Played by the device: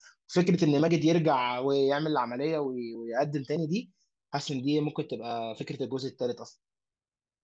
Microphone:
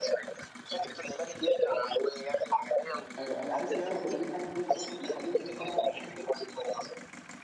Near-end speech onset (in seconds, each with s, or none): 3.2 s